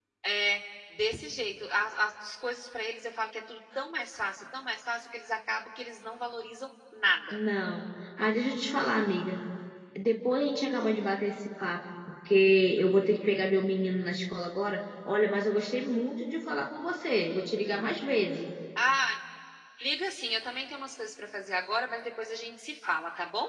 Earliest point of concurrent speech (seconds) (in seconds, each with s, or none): none